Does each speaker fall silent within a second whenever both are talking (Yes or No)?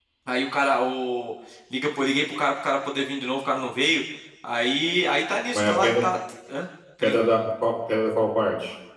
Yes